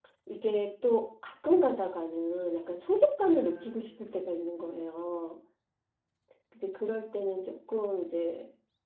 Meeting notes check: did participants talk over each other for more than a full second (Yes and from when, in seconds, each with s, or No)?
Yes, from 3.2 s